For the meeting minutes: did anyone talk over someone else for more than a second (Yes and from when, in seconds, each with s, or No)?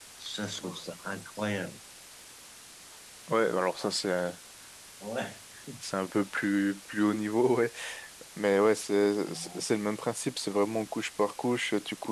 No